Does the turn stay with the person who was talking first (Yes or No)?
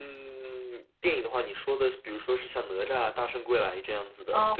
No